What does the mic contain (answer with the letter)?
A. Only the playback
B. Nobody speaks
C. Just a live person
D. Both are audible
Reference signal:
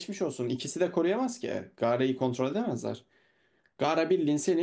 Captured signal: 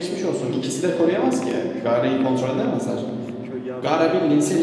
D